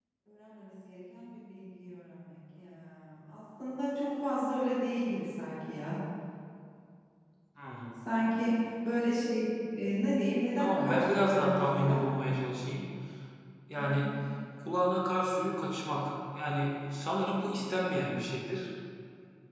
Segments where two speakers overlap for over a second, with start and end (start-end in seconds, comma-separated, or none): 10.6-12.0